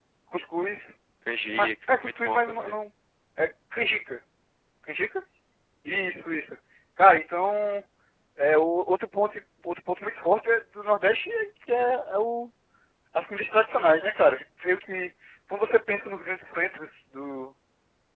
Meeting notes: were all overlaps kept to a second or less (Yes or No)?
No